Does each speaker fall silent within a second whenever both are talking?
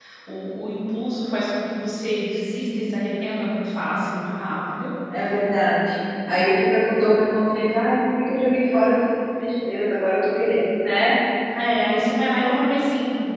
Yes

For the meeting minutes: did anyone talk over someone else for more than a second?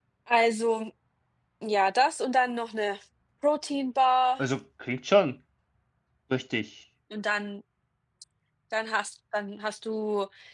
No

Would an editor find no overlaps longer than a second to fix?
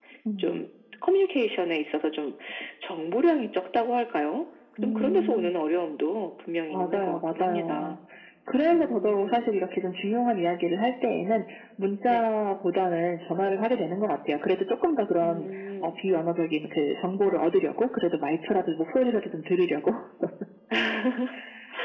No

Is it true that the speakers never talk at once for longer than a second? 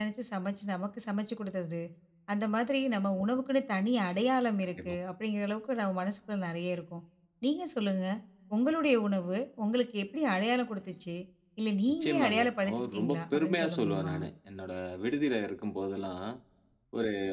No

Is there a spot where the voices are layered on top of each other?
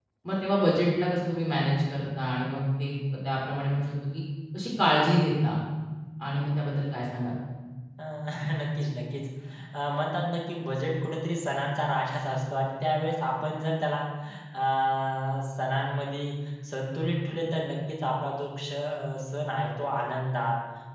No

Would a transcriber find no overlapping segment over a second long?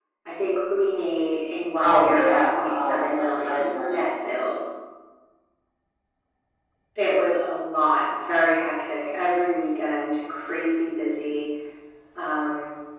No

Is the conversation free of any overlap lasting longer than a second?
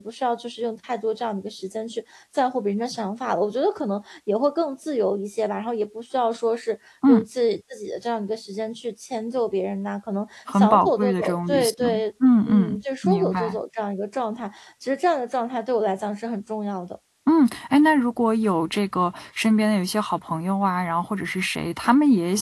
No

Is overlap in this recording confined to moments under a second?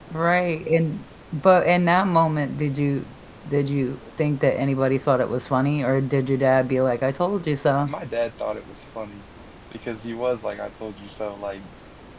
Yes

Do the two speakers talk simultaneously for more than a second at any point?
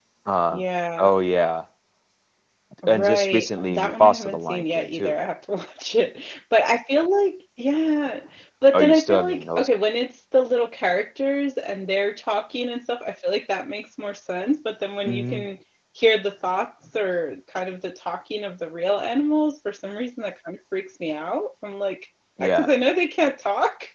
Yes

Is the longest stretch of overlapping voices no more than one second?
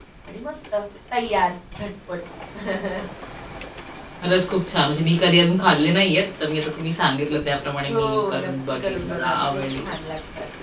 No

